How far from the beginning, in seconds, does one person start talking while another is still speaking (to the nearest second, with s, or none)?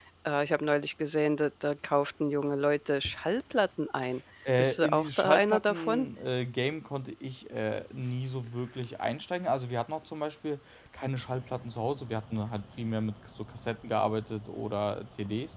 4 s